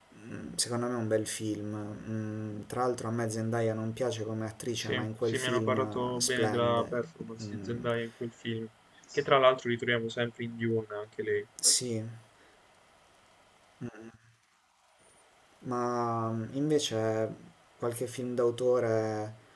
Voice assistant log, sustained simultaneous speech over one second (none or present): present